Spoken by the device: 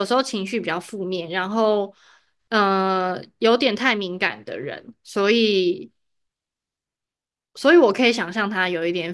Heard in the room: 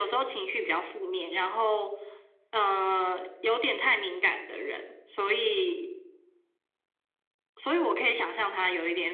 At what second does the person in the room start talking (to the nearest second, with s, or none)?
none